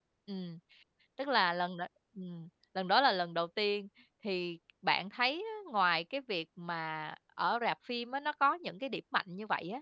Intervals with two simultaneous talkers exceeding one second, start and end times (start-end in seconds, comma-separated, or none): none